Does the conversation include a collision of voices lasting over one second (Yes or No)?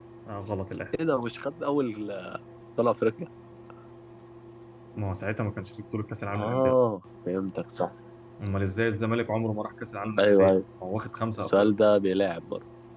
No